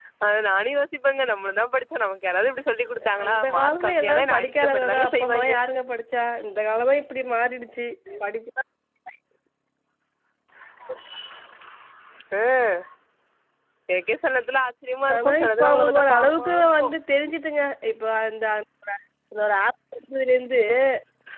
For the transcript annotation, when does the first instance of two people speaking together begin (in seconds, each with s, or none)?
3.2 s